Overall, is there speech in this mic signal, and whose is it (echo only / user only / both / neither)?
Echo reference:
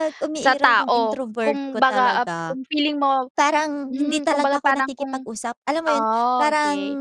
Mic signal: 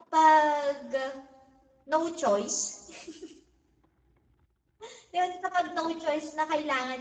user only